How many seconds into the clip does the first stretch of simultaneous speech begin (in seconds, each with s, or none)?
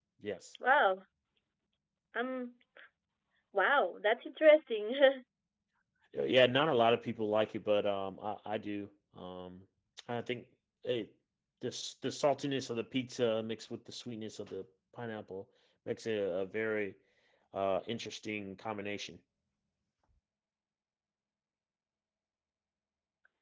none